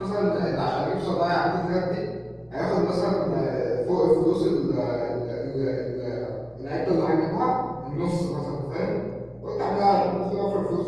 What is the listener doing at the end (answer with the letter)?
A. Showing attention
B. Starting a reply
A